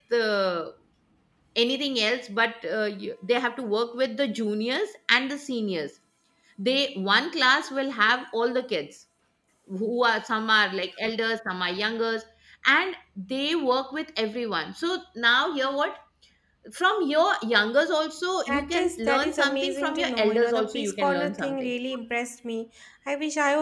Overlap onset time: 18.5 s

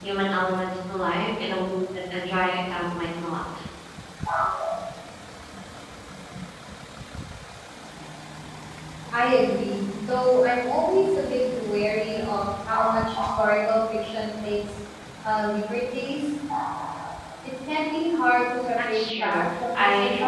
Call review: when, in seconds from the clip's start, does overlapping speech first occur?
18.8 s

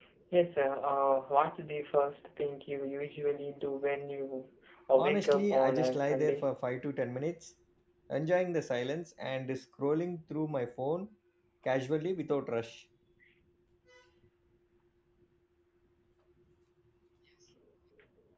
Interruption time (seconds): 5.0 s

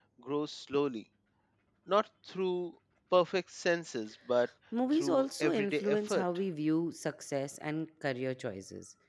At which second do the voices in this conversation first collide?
4.9 s

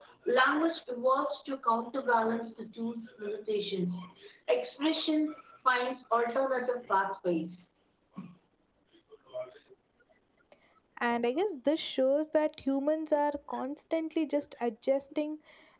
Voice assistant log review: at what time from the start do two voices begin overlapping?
none

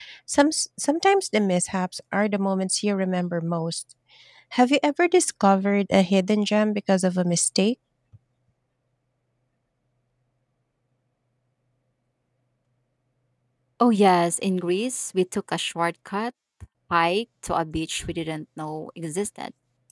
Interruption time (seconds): none

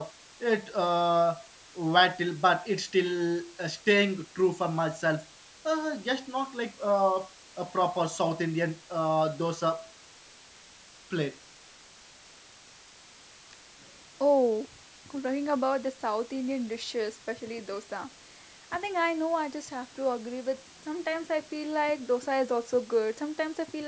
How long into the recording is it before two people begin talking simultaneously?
none

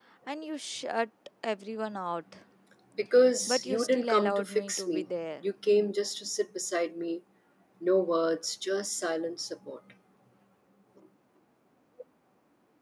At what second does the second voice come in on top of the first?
3.5 s

